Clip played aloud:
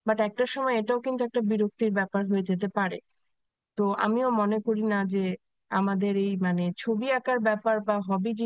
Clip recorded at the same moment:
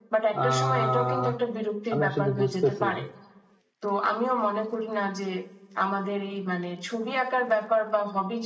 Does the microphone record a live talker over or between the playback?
Yes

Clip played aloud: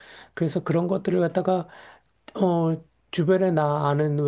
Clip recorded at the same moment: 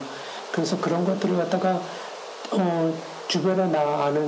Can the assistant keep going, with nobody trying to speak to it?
Yes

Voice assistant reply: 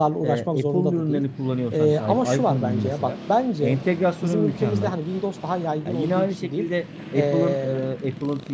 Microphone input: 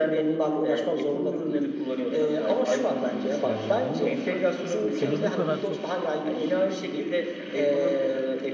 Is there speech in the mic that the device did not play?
Yes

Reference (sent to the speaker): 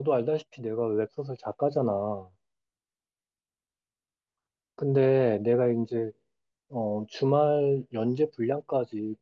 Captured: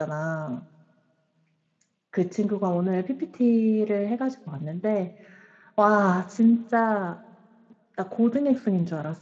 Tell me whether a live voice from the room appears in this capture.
Yes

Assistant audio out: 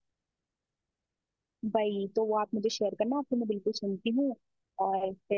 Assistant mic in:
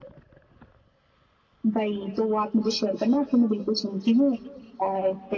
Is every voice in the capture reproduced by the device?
Yes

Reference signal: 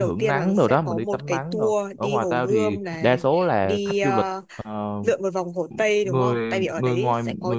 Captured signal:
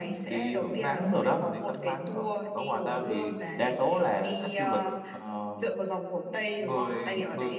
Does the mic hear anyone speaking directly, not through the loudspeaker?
No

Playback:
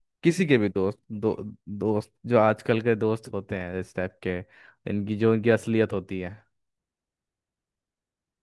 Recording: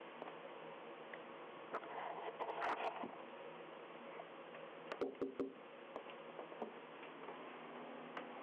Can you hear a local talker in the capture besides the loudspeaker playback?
No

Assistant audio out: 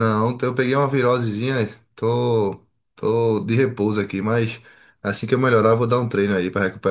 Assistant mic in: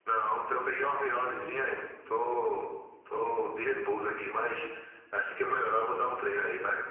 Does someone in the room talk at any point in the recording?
No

